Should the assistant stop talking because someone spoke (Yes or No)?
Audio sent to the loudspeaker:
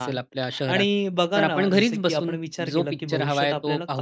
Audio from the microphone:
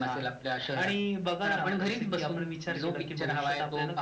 No